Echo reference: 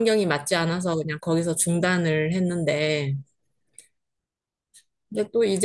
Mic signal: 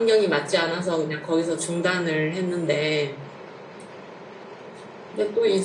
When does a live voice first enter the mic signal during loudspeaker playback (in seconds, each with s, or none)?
none